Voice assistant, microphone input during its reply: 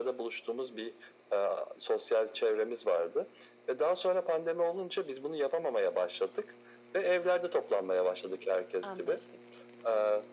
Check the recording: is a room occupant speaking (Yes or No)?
Yes